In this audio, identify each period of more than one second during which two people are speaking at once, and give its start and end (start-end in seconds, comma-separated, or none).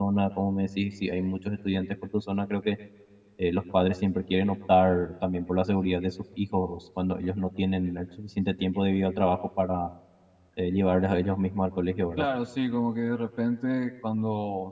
none